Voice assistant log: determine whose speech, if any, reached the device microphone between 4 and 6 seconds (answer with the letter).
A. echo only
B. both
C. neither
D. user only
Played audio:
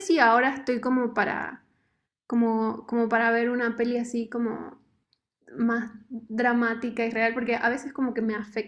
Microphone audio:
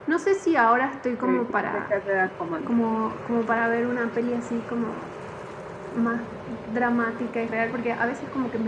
A